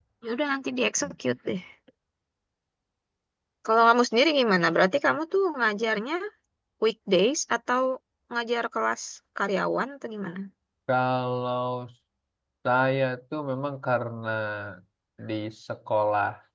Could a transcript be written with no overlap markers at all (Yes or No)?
Yes